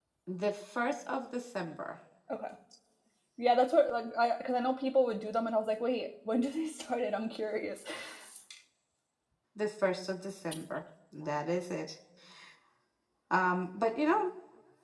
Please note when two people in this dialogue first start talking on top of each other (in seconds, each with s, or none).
none